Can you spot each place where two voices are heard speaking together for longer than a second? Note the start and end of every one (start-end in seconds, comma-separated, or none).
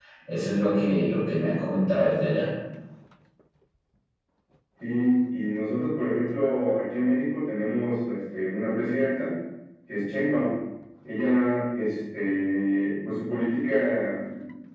none